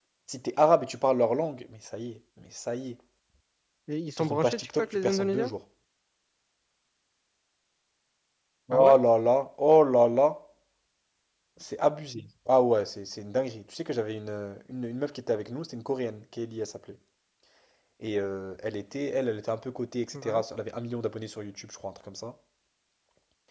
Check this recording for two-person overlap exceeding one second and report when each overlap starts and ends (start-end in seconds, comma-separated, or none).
4.2-5.5